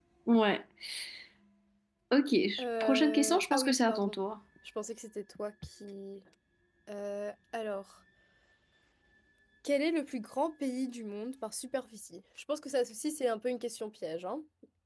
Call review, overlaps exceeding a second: present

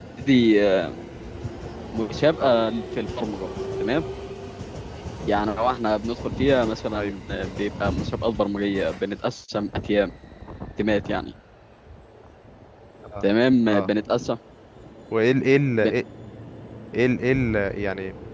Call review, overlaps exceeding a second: none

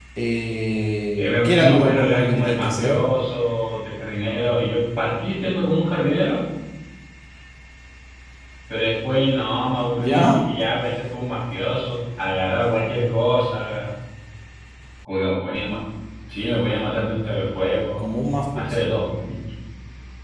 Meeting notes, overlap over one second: present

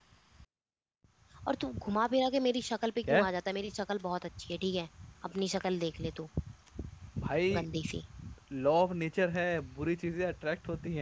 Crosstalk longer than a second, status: none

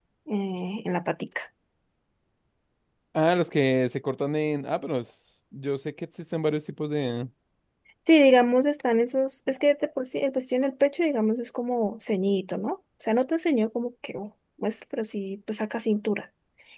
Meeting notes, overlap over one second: none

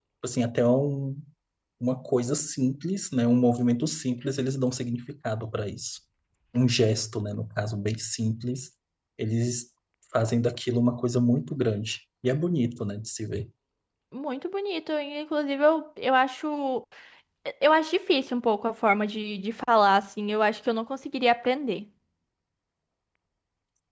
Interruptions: none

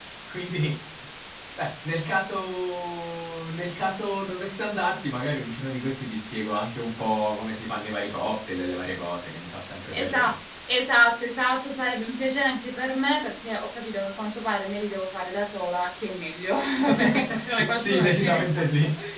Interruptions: present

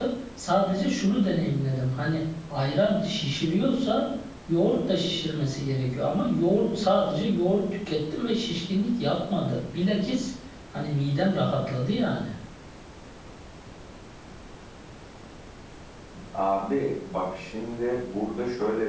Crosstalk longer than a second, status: none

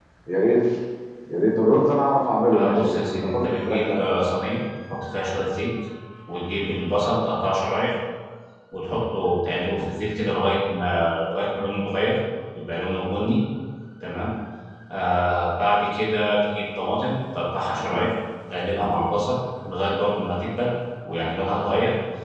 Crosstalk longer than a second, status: present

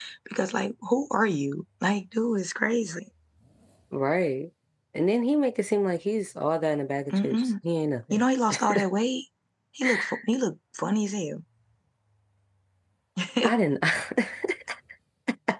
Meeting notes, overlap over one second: none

